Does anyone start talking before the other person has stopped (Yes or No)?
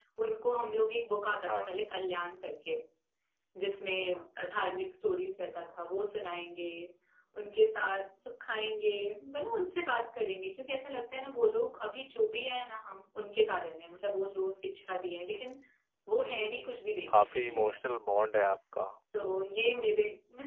Yes